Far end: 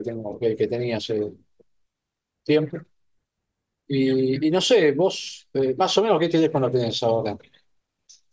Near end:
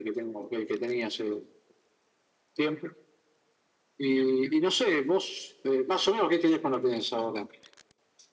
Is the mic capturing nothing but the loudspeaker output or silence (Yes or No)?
Yes